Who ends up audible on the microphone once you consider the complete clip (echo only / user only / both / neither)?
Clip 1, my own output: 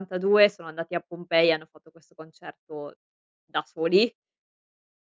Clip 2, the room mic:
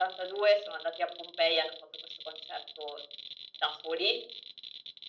echo only